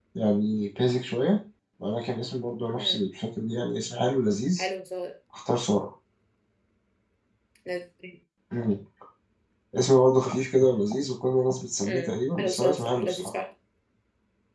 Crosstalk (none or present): present